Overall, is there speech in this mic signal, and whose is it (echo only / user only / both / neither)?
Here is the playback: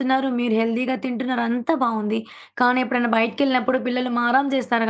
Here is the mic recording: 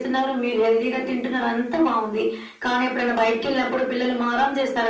echo only